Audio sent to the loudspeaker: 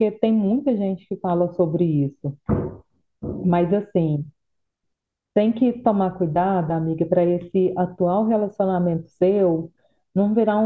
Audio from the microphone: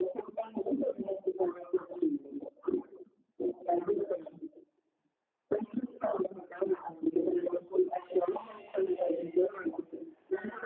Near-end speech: none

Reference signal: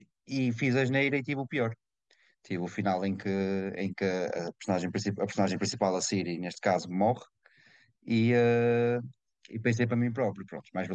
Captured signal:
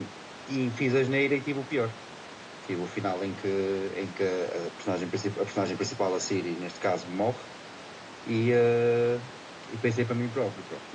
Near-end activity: none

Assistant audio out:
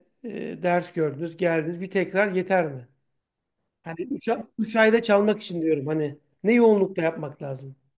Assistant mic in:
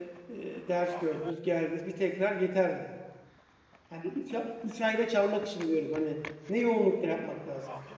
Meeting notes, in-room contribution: none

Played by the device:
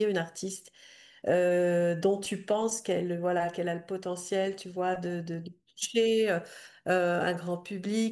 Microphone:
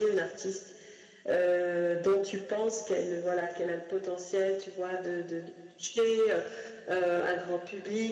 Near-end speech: none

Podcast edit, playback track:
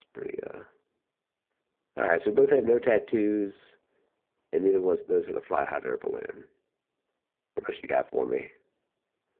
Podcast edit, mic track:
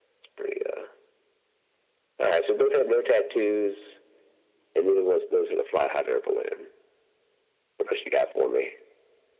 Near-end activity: none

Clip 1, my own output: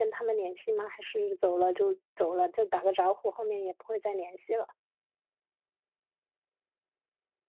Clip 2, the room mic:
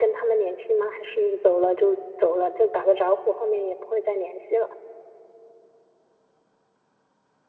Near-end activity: none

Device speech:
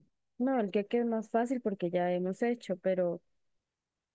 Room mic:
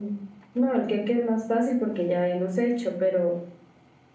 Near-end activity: none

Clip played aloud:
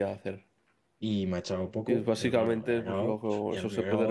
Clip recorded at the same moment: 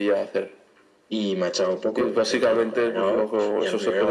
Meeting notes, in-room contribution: none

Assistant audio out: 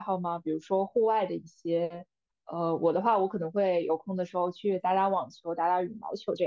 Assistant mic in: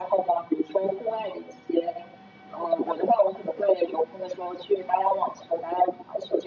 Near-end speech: none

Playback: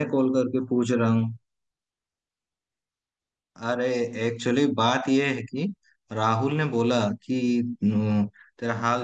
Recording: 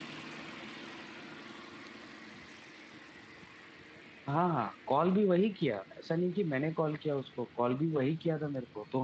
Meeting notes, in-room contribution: present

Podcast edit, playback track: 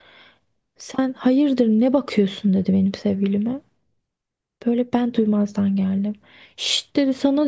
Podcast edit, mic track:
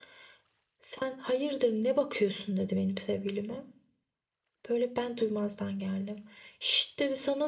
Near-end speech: none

